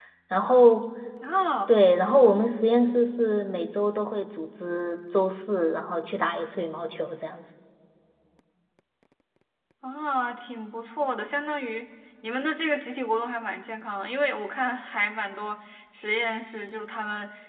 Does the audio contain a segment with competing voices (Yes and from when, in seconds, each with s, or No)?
No